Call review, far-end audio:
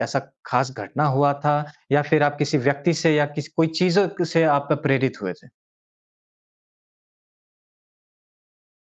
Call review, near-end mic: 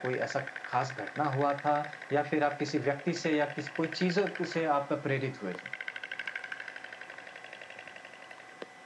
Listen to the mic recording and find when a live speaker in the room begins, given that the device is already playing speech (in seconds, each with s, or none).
none